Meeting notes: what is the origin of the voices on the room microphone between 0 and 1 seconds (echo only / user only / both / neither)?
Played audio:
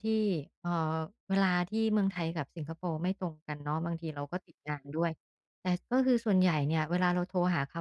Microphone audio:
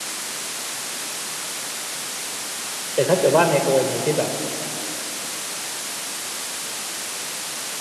neither